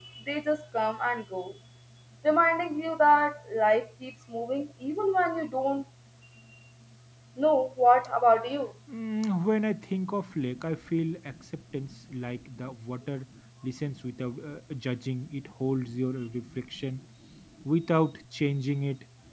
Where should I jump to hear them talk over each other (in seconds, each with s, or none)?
none